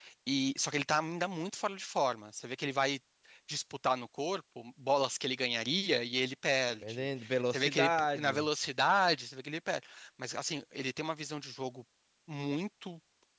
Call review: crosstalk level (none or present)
present